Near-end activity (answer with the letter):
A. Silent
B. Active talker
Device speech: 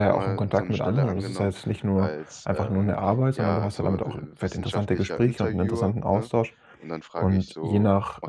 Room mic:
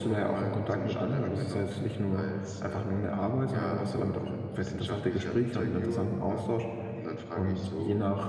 A